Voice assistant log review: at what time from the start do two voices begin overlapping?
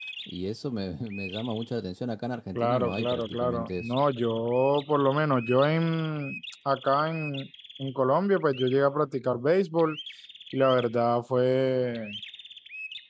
3 s

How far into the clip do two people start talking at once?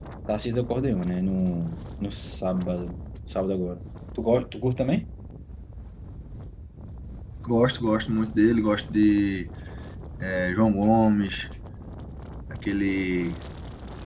none

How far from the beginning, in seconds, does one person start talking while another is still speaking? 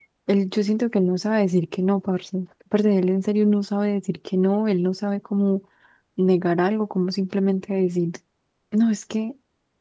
none

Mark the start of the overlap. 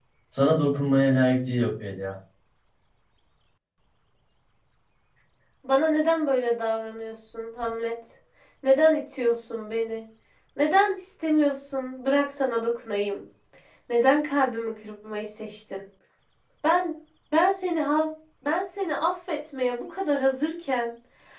none

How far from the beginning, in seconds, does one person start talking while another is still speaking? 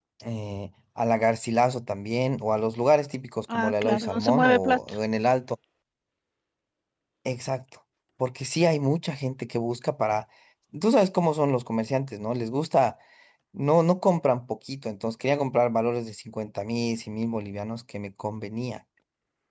3 s

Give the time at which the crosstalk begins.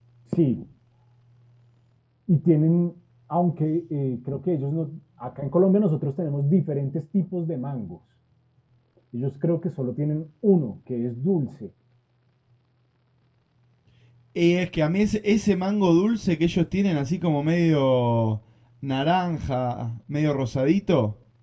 none

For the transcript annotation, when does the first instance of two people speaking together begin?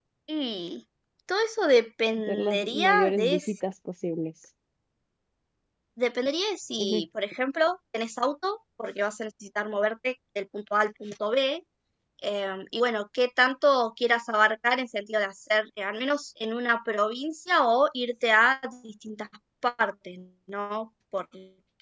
2 s

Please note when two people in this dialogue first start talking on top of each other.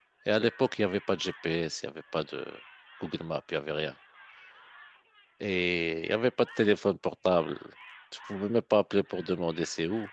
none

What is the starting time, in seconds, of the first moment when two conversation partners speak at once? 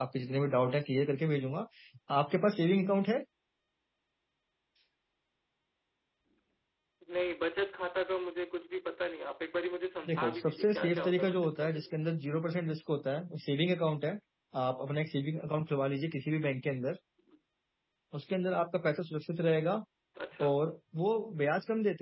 10 s

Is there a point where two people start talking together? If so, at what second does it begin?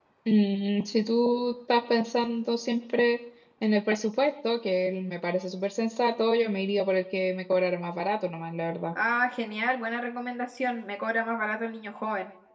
none

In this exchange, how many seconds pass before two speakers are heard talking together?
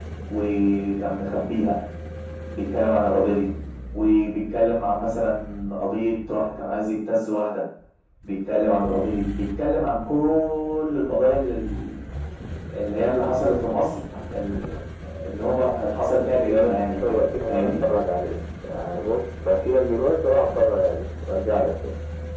16 s

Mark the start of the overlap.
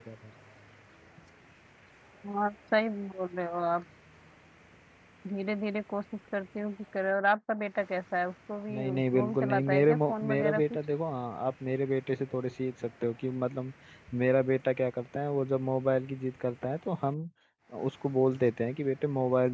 9 s

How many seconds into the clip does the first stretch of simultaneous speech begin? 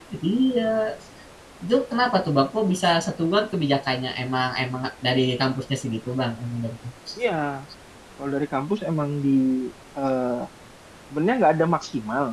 none

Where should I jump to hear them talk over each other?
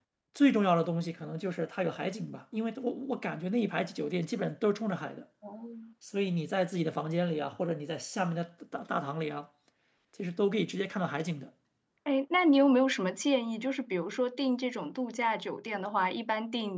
none

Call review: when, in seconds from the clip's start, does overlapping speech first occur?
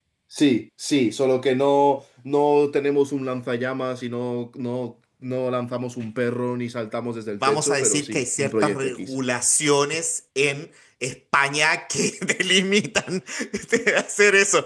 7 s

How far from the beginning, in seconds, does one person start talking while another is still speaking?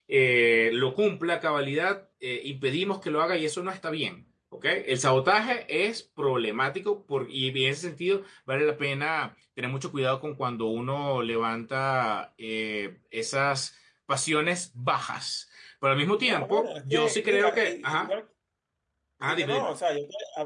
16 s

